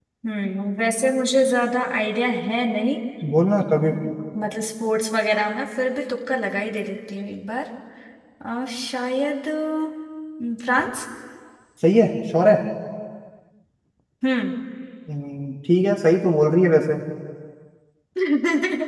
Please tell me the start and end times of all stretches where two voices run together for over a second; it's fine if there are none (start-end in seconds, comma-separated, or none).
none